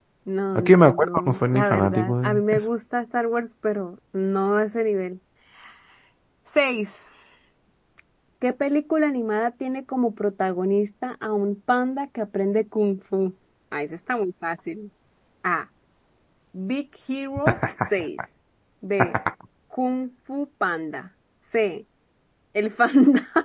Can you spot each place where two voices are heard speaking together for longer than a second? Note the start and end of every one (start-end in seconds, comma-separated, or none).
0.6-2.6